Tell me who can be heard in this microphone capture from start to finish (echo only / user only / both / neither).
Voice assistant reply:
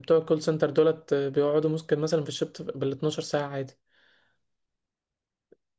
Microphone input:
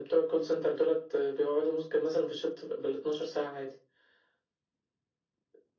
echo only